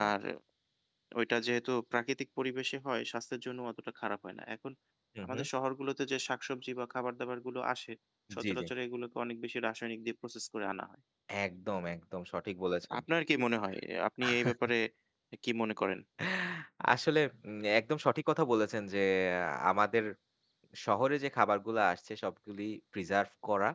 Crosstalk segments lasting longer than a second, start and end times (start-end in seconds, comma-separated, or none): none